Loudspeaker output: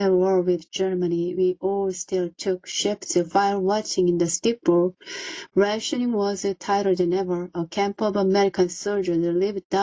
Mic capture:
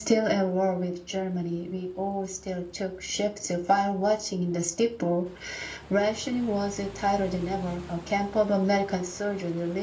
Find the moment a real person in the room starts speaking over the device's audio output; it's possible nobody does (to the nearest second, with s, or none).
none